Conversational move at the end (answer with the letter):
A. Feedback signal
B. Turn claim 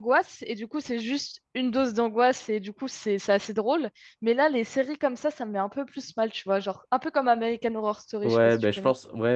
B